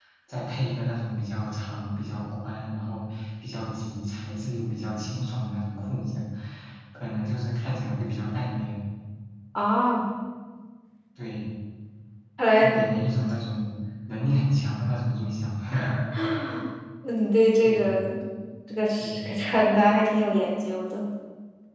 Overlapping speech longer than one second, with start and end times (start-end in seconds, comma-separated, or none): none